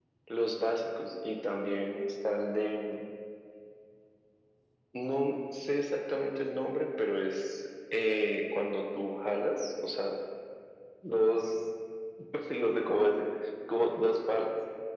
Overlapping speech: No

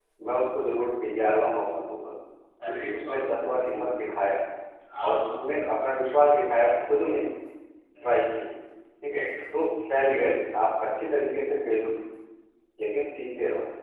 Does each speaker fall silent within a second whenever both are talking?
No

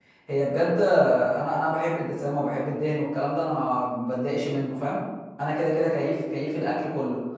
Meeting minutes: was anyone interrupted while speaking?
No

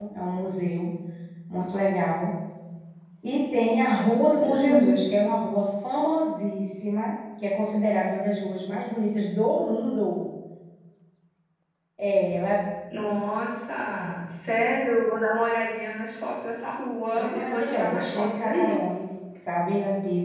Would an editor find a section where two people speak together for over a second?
Yes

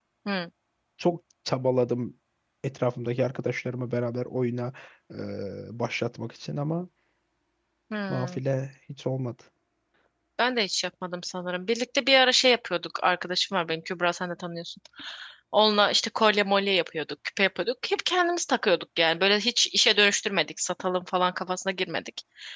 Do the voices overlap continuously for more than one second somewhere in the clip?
No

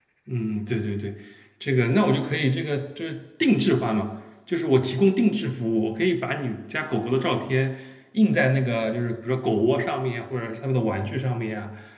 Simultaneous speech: No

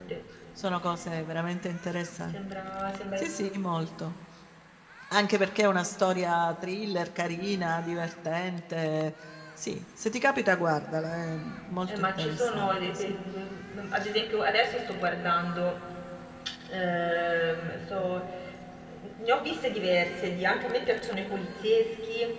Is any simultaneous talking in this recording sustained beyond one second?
Yes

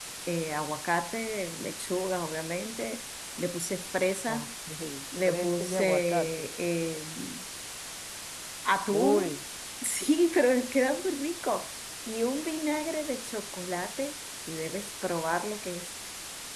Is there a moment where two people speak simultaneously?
Yes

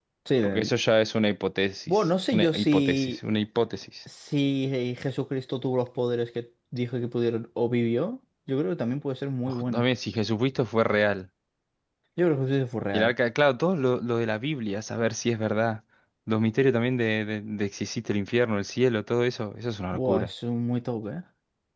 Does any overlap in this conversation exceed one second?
Yes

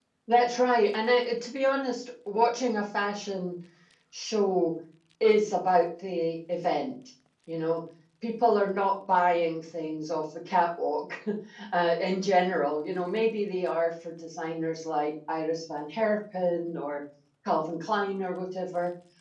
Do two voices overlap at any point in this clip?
No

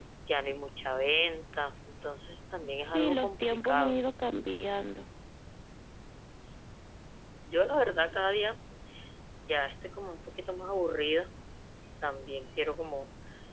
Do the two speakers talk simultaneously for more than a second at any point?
Yes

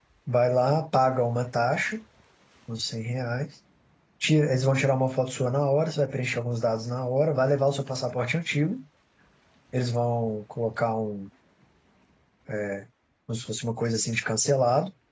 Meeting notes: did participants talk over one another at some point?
No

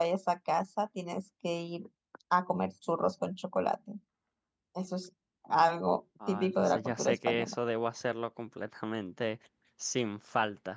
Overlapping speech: Yes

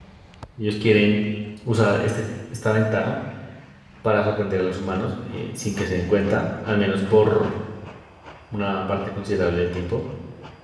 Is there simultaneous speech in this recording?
No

